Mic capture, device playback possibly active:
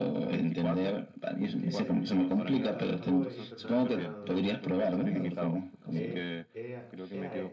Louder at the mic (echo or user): echo